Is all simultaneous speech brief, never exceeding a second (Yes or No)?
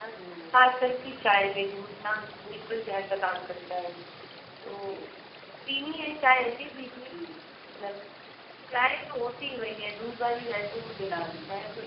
Yes